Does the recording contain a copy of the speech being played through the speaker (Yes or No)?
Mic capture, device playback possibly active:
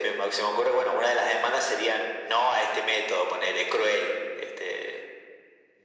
Yes